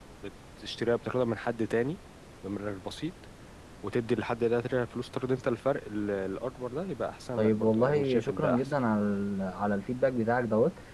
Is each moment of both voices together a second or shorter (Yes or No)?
No